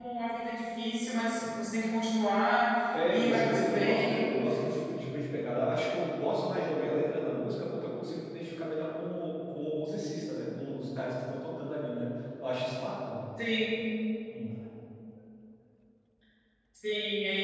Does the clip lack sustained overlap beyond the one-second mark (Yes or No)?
No